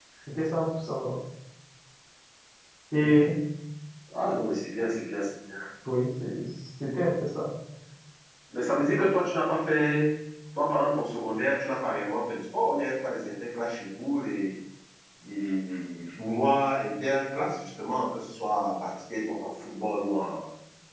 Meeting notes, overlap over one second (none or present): none